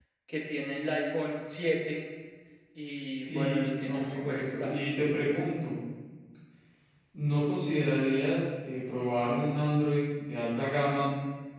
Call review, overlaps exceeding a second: present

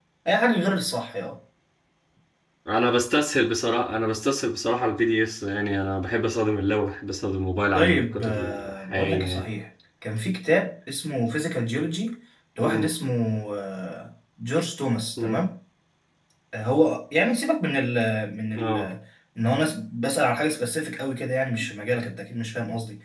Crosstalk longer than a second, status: present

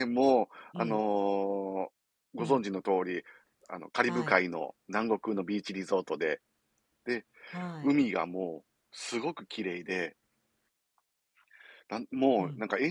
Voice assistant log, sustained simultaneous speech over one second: none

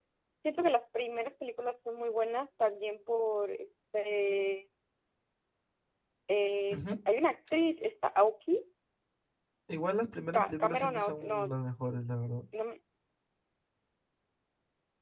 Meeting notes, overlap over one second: present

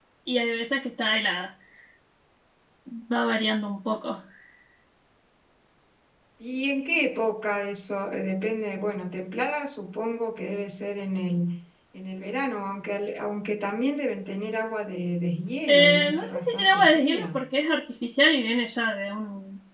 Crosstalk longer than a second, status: present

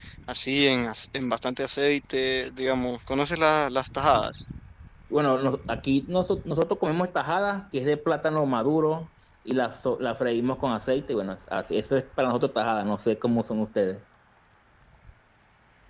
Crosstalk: none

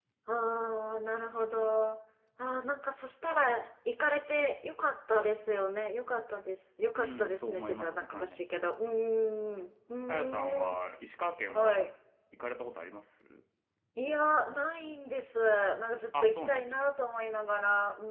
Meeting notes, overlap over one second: present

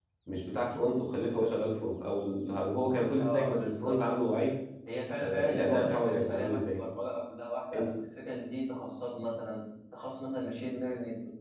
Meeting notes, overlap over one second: present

